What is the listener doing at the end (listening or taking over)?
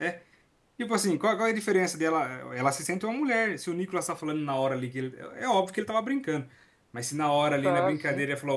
listening